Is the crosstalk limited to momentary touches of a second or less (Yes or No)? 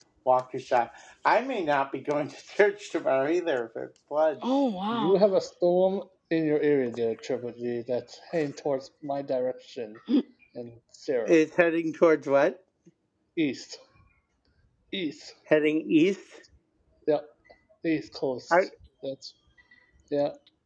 Yes